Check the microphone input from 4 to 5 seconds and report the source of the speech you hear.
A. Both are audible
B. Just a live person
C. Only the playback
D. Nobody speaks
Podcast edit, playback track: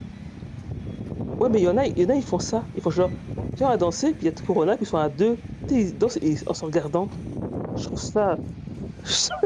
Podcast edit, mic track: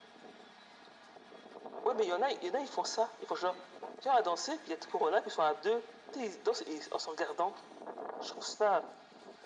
C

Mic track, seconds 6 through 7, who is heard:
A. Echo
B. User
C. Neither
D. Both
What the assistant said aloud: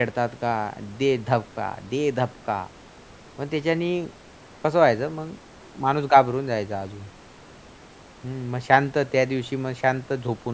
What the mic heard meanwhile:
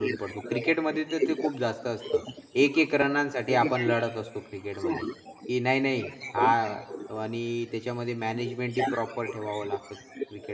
D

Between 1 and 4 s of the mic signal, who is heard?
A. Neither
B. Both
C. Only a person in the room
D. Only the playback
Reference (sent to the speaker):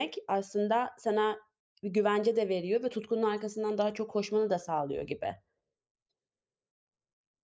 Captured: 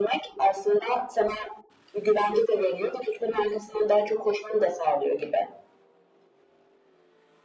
D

